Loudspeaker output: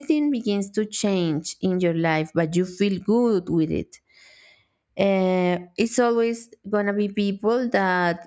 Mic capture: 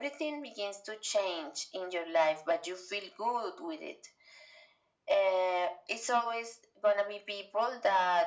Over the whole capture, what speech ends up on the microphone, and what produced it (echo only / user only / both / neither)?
echo only